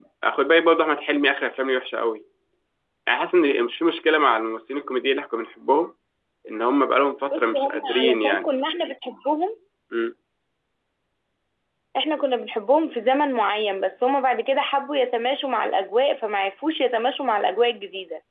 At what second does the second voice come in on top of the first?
7 s

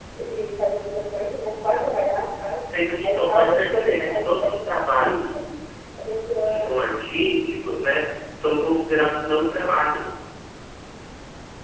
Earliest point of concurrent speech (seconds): 3 s

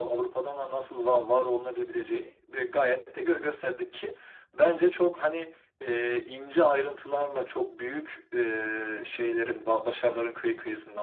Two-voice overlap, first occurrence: none

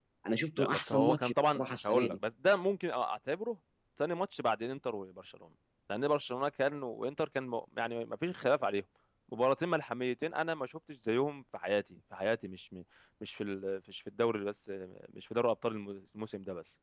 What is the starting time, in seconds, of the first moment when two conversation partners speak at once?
1 s

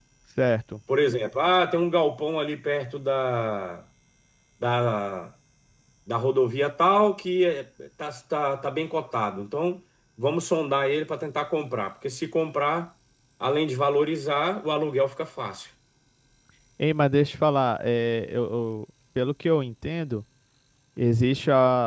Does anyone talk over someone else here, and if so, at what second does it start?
none

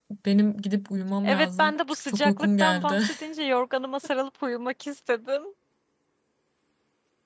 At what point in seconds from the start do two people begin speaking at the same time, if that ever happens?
1 s

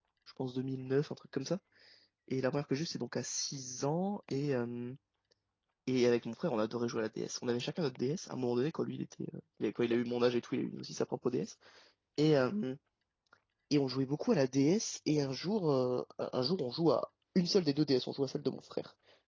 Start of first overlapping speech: none

